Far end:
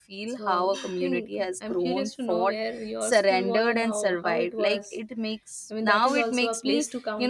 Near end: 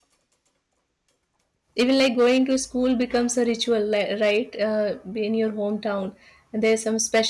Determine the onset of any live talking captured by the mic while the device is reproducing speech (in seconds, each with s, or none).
1.8 s